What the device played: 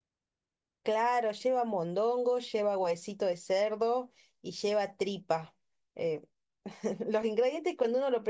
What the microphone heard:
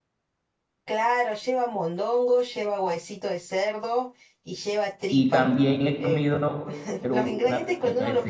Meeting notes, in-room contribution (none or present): present